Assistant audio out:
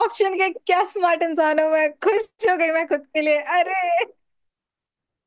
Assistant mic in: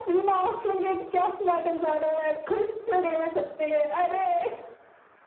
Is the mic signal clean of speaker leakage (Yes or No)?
No